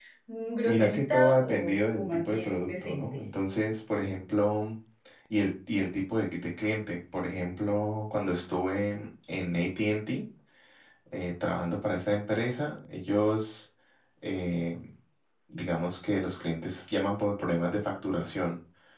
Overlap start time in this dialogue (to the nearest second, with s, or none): 1 s